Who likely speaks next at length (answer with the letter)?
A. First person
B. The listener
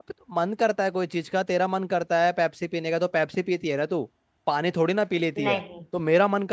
A